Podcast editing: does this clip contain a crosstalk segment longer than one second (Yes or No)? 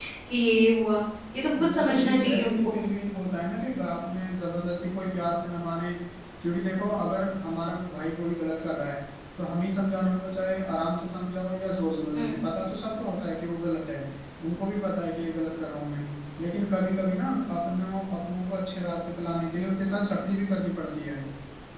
Yes